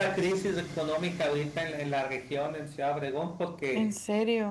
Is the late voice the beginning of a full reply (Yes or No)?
No